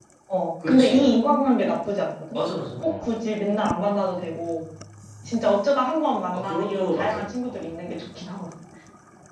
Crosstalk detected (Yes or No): Yes